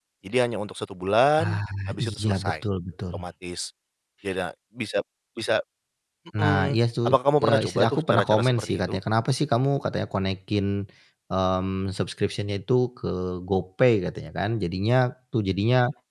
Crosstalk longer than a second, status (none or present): present